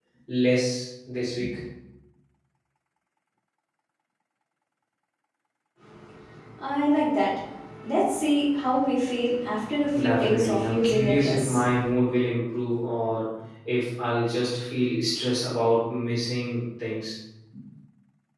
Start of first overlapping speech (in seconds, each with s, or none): 9.9 s